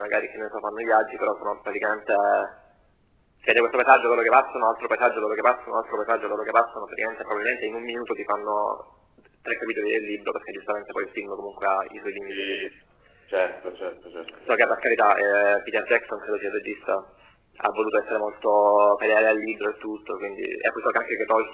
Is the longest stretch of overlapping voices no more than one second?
No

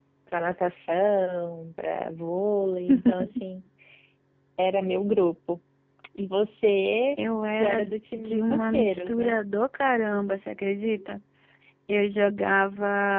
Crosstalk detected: Yes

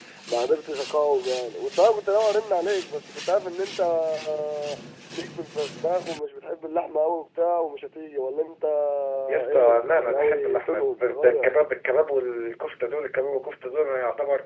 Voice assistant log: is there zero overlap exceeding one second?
No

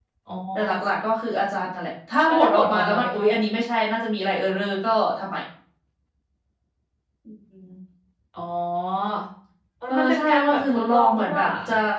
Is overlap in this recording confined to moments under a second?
No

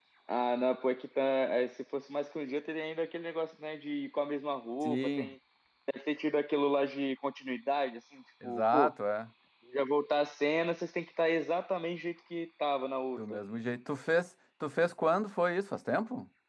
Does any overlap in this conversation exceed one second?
No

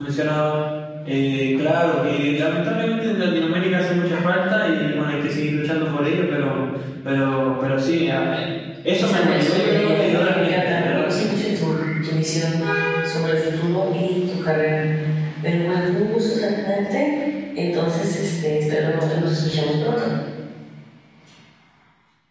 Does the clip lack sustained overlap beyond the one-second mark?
No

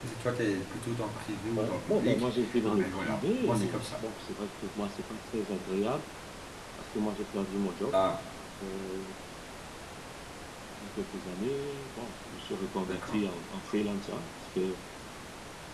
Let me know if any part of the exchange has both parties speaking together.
Yes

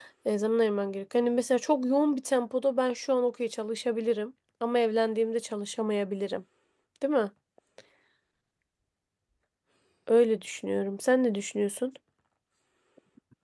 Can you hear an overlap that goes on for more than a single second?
No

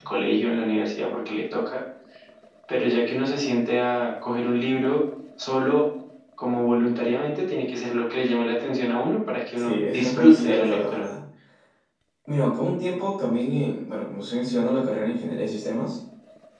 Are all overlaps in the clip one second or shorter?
No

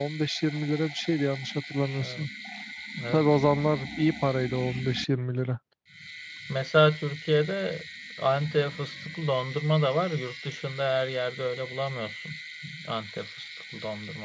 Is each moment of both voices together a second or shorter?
Yes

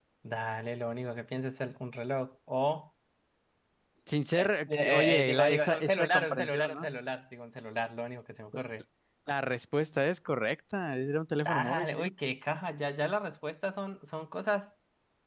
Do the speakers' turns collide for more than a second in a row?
Yes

